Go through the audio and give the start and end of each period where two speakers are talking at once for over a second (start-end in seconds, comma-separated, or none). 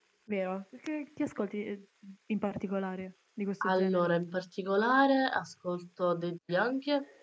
none